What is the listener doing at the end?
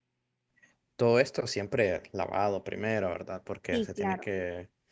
listening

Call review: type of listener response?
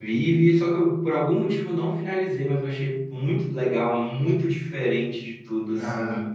listening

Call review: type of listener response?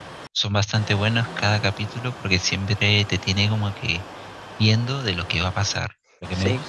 listening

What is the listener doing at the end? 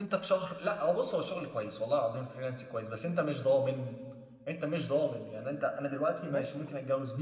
listening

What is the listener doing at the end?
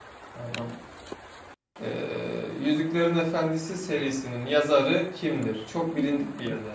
taking over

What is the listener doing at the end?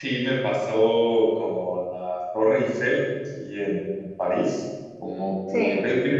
listening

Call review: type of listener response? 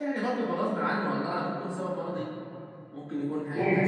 taking over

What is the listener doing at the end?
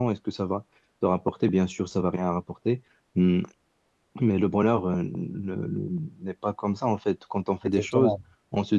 listening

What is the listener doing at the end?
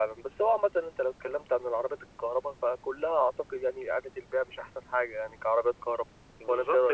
taking over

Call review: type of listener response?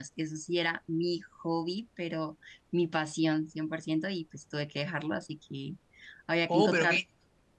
taking over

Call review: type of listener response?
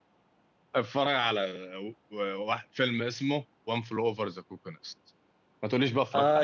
taking over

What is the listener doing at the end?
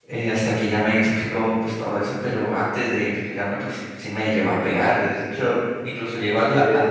listening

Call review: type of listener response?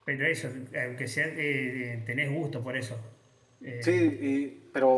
taking over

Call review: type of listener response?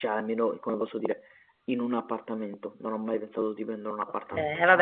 taking over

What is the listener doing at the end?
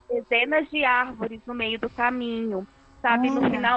listening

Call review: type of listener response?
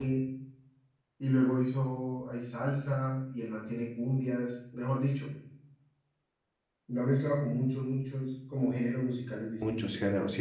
taking over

